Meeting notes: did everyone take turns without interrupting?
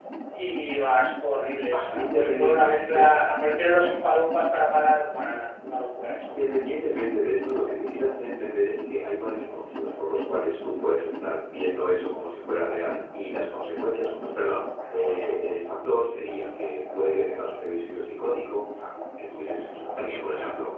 No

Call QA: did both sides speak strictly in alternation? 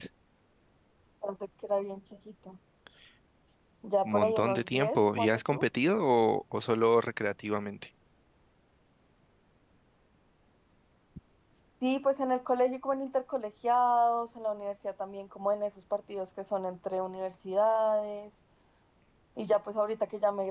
No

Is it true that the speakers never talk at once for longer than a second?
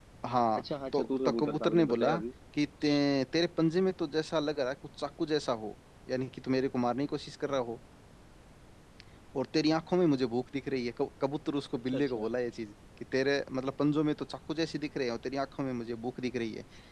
No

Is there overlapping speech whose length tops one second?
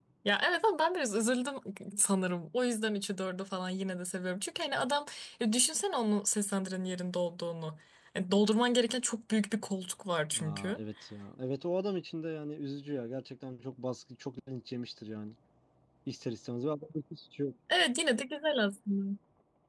No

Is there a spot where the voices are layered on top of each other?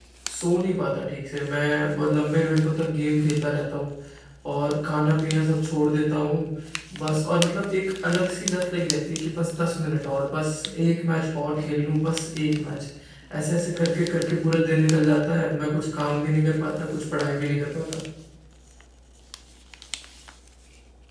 No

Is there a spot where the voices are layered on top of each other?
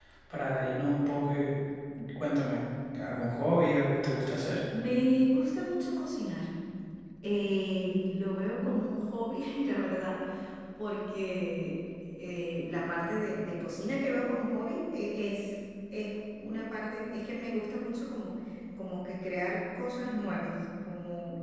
No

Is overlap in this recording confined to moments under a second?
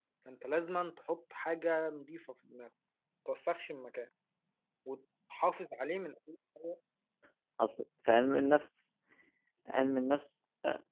Yes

